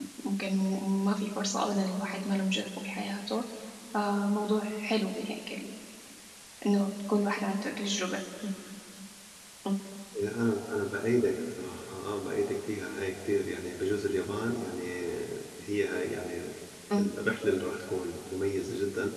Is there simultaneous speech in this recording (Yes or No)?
No